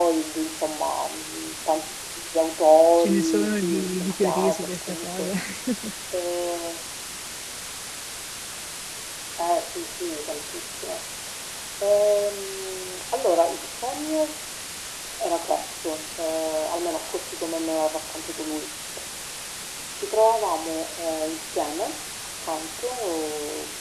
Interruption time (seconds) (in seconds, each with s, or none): 3.0 s